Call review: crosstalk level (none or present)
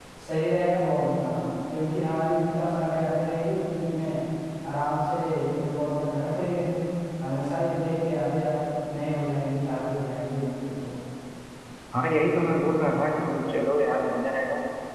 none